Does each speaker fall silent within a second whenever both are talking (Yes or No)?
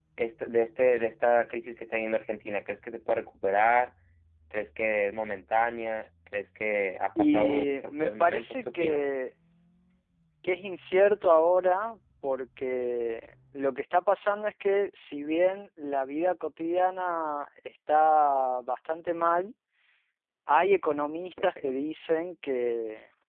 No